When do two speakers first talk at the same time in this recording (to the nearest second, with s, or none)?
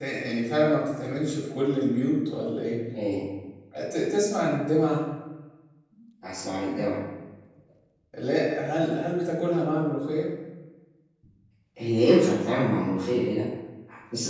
none